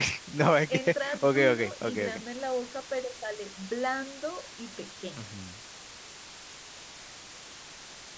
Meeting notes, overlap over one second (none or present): present